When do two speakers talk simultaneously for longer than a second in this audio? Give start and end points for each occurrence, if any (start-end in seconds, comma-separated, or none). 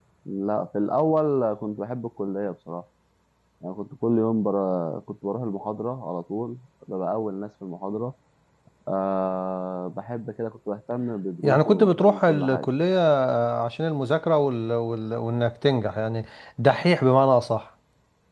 11.4-12.7